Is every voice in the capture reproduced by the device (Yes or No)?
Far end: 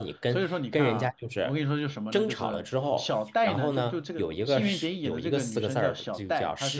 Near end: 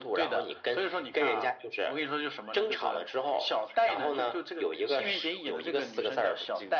Yes